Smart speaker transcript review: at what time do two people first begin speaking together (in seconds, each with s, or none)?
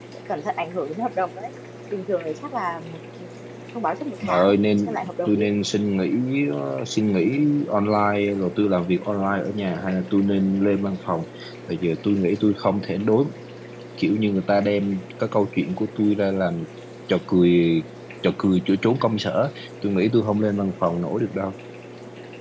4.2 s